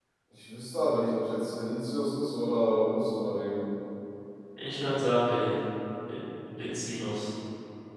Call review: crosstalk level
none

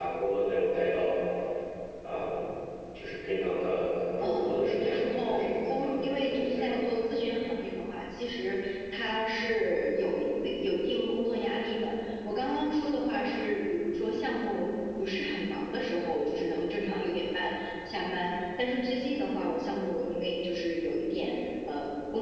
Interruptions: present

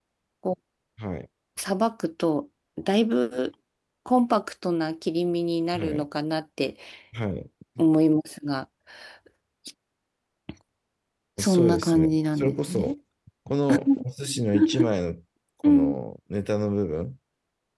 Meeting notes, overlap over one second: present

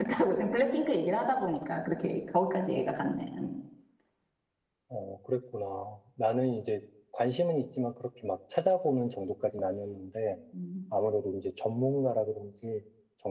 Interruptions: none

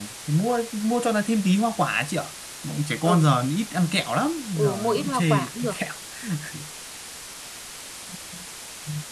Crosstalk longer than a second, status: present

